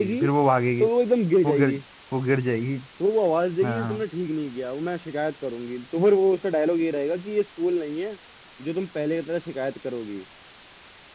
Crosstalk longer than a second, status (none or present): none